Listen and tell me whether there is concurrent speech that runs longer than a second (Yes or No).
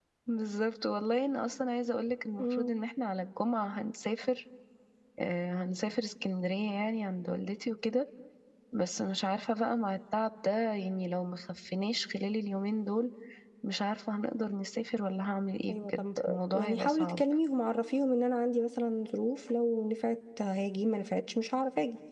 Yes